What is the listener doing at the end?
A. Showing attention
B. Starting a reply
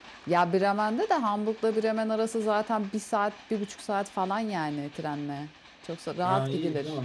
B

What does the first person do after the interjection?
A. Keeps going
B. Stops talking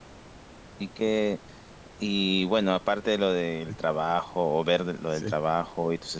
A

